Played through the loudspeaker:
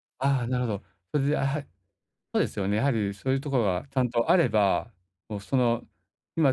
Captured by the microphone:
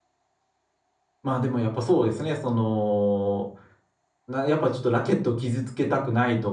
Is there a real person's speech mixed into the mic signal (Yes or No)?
Yes